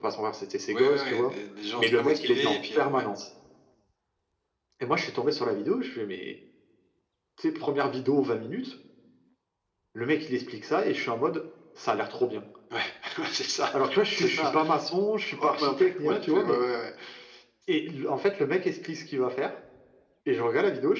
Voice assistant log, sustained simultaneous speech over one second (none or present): present